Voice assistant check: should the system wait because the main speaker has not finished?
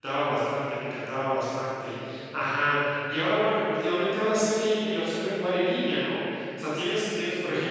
Yes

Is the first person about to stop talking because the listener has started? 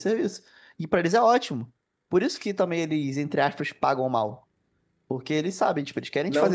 Yes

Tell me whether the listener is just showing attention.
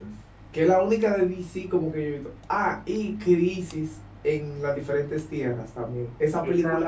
No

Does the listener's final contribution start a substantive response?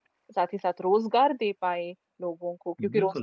Yes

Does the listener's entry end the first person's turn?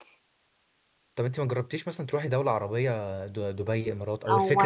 Yes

